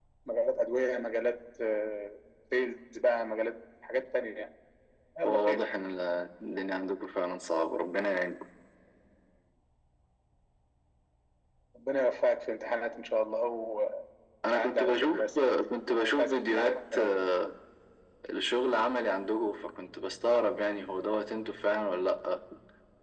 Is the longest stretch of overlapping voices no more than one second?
No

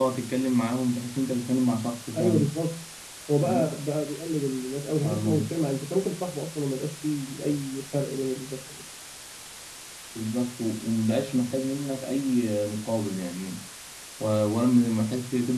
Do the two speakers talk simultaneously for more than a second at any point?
No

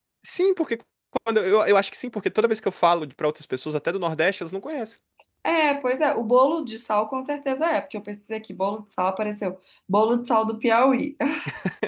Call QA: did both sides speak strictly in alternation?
Yes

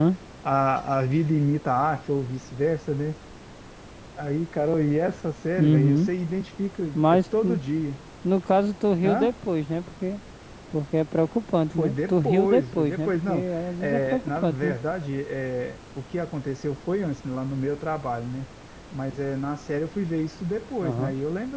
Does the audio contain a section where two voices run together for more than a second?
Yes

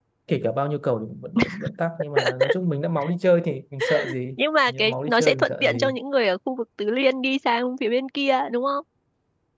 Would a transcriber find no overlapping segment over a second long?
No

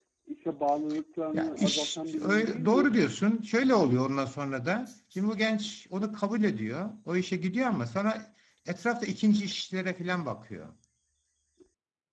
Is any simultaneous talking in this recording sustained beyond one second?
Yes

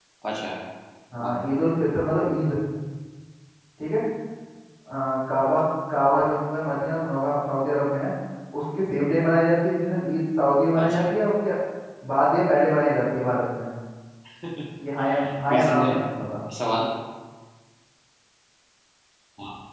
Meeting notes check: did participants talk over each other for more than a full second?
No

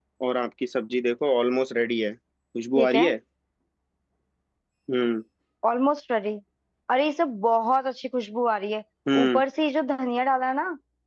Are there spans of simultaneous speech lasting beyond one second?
No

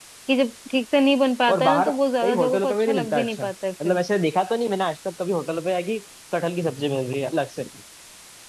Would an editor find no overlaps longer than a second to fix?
No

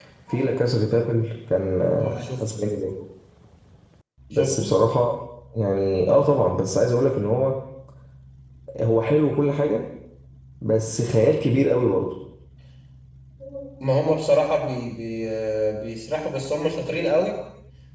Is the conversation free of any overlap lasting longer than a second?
Yes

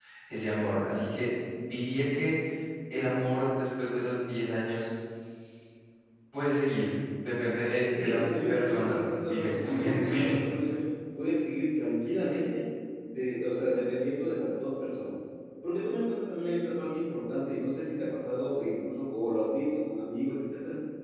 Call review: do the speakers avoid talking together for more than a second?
No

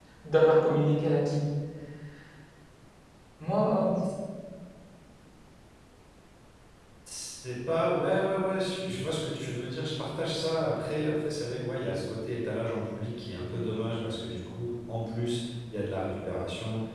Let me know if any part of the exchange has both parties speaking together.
No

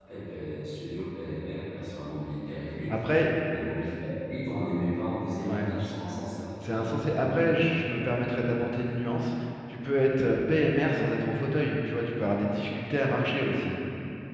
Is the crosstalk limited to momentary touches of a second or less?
Yes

